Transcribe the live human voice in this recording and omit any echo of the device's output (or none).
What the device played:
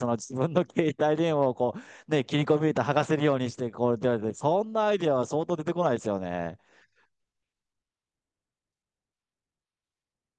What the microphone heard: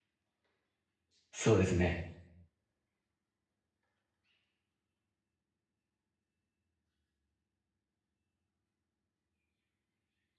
そうですね。